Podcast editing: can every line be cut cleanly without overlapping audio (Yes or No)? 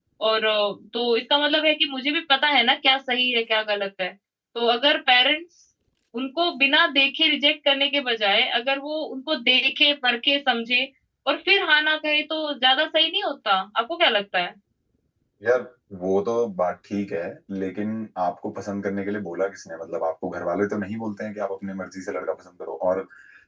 Yes